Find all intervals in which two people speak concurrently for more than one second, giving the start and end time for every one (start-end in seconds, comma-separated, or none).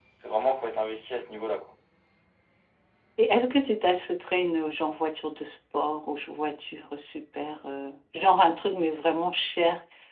none